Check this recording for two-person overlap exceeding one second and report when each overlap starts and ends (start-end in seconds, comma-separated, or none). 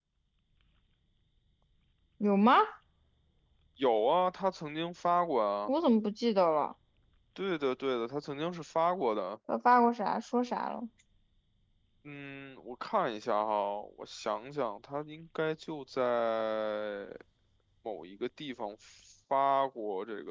none